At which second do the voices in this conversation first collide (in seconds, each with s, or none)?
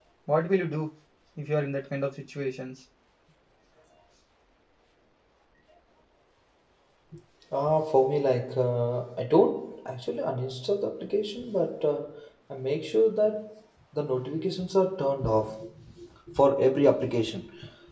none